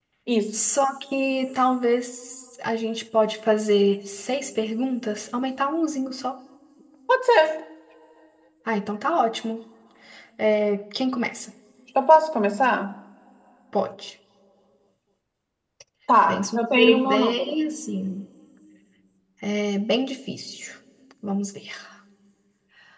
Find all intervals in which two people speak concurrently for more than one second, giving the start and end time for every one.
16.3-17.6

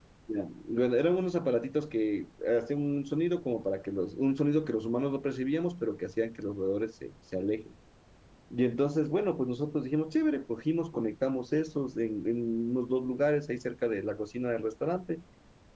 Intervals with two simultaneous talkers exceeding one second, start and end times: none

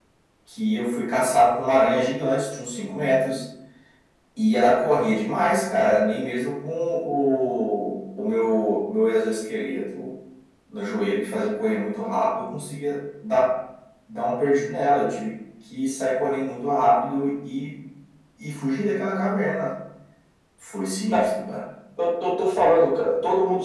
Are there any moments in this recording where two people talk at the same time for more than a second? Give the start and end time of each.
none

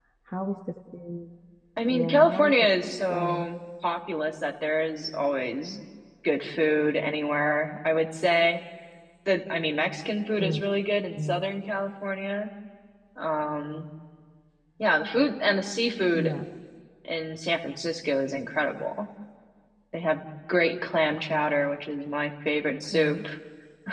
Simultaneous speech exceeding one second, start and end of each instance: 1.9-3.5

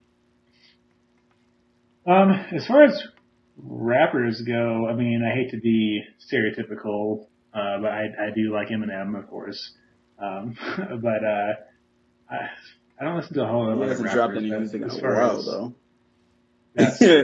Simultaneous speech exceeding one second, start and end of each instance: 13.7-15.6

